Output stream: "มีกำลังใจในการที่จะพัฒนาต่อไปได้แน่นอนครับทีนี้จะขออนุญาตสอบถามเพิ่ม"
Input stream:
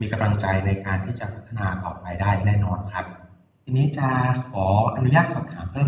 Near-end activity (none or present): none